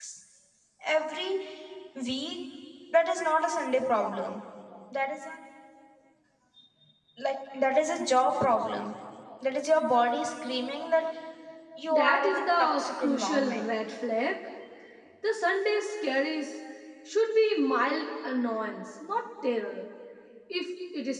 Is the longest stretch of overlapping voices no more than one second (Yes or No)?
No